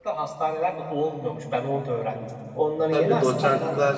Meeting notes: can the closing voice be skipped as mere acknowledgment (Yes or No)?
No